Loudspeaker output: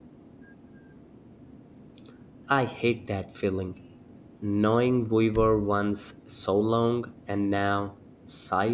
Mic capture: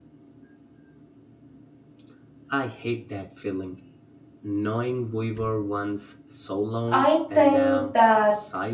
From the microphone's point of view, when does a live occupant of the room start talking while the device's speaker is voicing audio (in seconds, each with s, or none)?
6.9 s